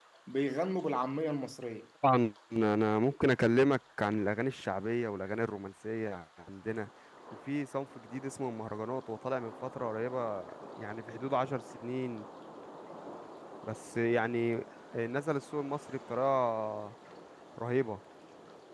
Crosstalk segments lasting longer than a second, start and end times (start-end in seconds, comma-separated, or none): none